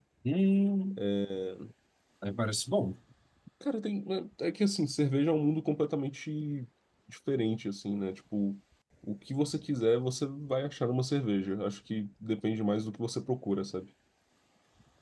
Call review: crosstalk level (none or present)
none